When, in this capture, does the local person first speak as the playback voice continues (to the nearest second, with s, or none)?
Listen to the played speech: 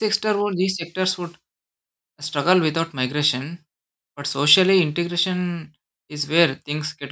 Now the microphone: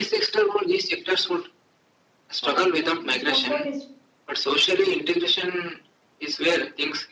2 s